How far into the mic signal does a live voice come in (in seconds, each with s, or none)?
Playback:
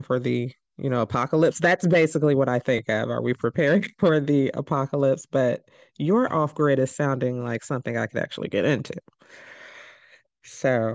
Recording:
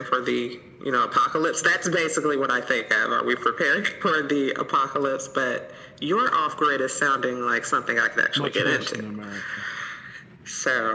8.3 s